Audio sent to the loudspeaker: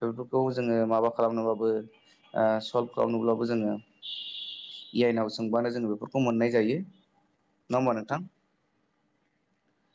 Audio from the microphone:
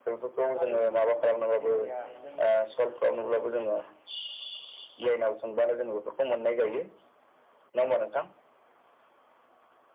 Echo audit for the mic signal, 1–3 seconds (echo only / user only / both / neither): both